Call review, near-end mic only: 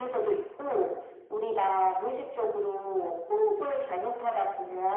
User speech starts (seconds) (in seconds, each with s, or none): none